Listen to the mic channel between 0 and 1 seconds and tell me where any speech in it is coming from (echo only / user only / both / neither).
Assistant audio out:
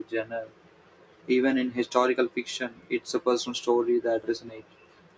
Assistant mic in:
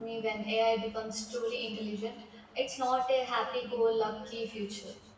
user only